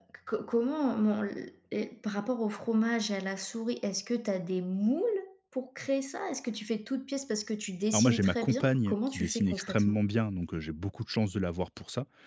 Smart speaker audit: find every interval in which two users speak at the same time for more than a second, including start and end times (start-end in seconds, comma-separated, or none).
7.9-10.0